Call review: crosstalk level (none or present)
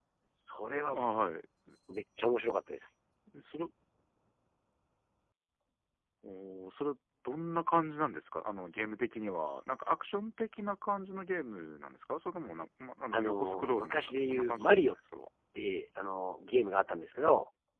present